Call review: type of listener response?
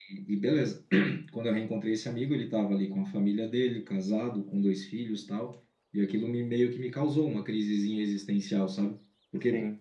listening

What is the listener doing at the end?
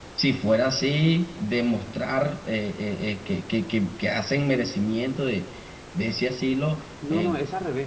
taking over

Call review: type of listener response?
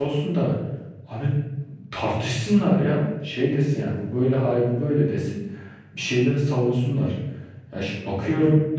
listening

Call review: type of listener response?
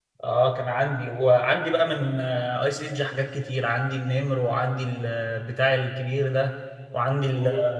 taking over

